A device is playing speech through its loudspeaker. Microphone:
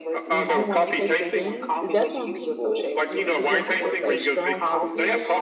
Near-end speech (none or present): present